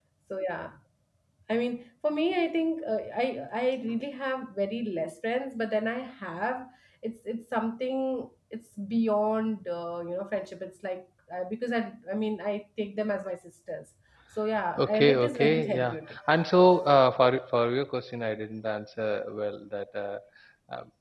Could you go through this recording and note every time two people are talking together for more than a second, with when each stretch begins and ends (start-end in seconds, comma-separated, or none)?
14.8-16.1